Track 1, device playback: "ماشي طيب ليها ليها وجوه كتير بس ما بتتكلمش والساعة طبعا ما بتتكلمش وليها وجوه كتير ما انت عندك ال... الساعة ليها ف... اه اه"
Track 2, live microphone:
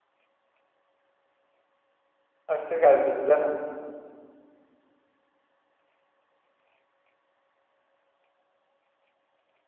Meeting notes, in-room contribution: present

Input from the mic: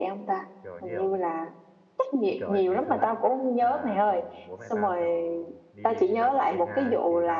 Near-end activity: present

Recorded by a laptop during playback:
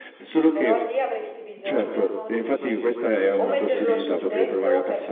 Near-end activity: present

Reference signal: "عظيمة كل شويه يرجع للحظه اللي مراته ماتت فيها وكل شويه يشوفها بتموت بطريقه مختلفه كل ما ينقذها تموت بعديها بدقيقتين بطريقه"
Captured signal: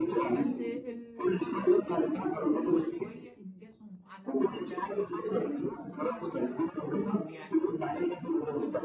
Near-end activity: present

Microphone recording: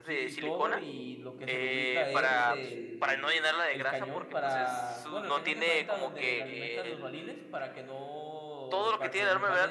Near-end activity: present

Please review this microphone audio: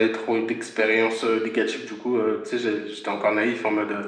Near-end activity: none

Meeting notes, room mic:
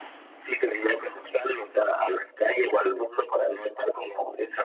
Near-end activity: none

